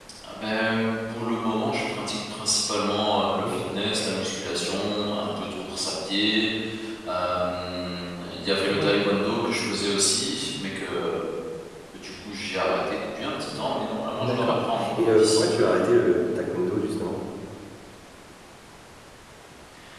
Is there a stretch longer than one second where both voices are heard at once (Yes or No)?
Yes